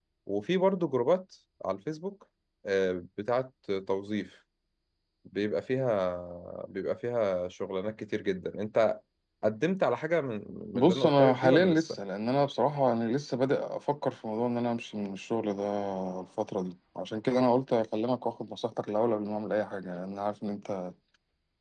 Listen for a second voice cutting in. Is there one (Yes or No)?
Yes